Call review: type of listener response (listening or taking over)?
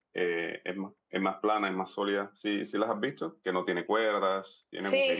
taking over